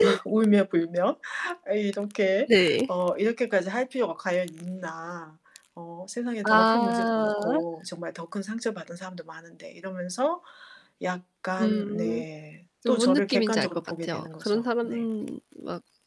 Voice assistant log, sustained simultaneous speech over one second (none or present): present